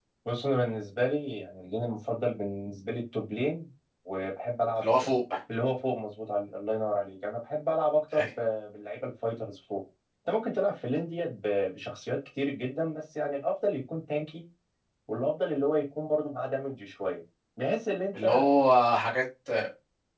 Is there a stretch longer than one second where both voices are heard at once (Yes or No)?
No